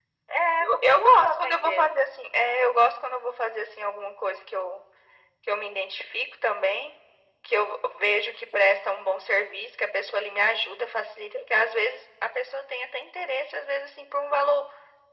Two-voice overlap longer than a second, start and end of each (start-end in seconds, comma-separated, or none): 0.6-1.9